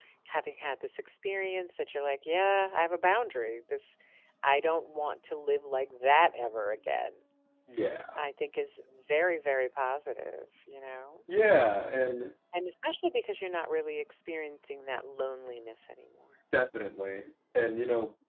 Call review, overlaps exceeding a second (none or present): none